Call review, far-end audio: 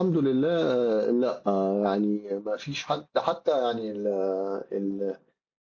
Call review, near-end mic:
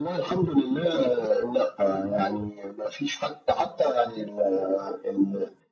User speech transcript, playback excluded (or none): none